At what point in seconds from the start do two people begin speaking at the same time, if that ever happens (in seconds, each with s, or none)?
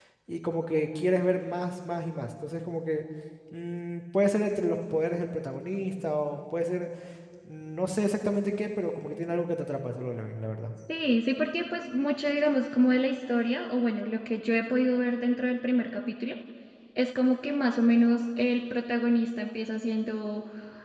none